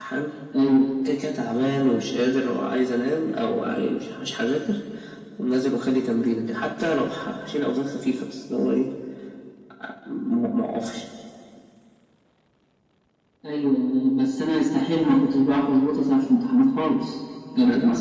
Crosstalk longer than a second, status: none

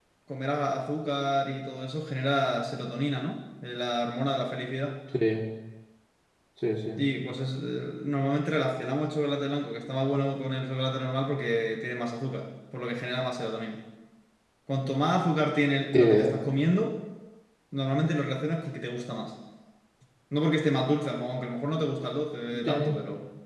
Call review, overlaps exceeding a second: none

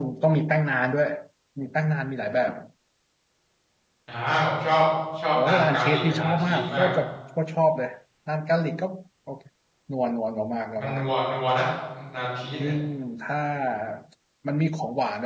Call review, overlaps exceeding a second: present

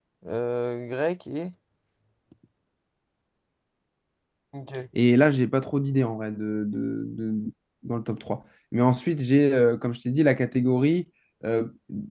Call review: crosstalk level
none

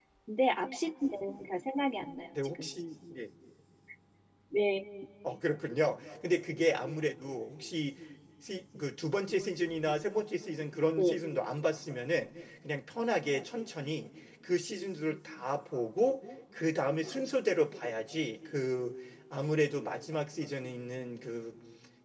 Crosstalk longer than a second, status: none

